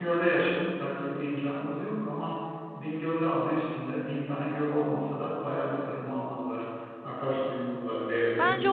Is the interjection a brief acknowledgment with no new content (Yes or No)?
No